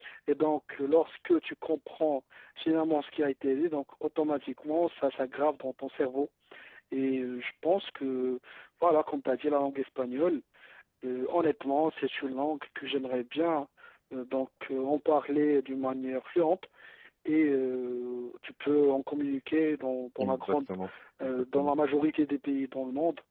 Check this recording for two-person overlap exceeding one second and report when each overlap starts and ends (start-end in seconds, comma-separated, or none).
none